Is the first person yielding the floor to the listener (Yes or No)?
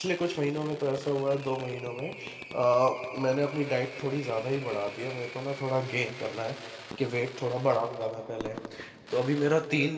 No